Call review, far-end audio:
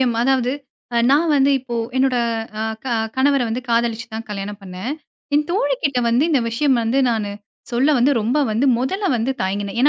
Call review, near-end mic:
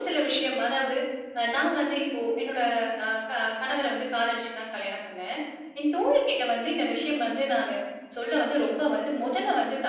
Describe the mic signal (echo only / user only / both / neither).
echo only